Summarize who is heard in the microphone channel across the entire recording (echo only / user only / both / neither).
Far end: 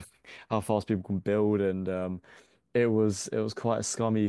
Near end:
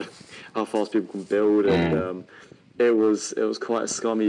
both